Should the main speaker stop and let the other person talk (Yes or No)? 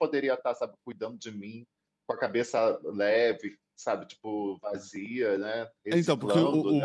Yes